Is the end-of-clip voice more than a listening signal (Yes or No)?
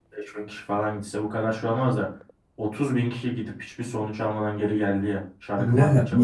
Yes